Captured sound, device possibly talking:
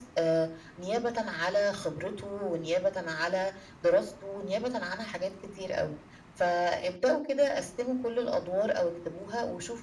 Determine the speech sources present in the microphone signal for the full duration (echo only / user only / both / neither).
echo only